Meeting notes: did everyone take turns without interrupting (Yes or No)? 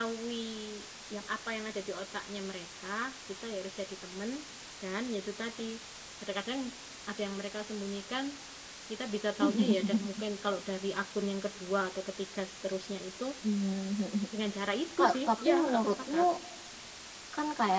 No